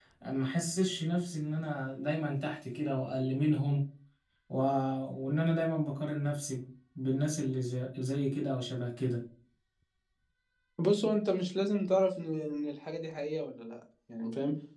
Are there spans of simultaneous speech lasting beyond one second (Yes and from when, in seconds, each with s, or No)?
No